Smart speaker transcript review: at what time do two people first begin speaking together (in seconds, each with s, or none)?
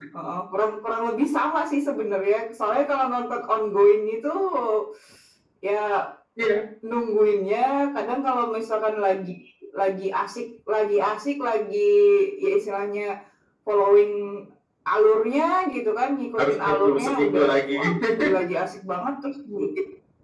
16.4 s